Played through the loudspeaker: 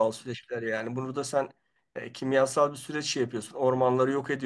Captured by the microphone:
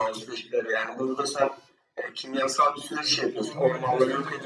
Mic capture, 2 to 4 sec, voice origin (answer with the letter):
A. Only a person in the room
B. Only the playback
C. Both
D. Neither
C